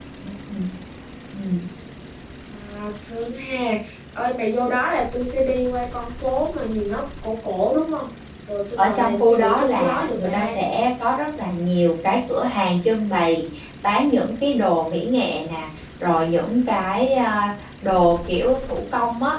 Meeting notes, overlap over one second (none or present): present